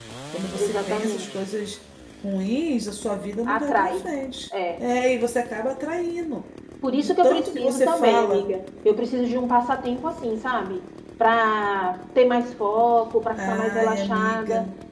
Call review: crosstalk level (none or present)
present